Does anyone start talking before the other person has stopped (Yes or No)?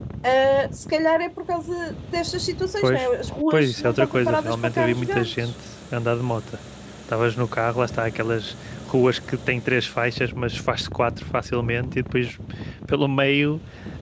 Yes